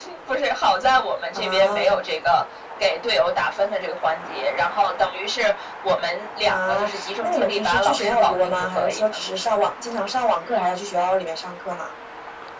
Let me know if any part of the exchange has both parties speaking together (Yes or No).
Yes